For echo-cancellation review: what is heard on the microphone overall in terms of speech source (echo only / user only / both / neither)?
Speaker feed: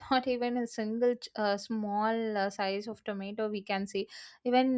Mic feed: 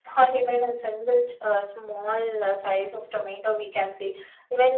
echo only